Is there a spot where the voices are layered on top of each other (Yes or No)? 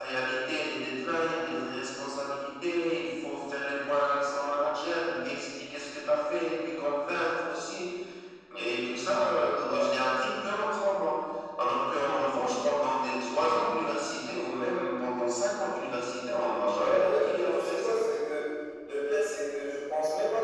Yes